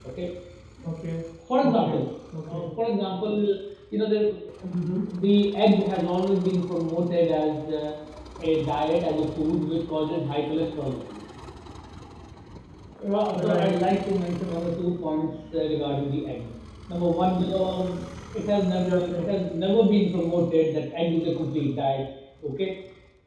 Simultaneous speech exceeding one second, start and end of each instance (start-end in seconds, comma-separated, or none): none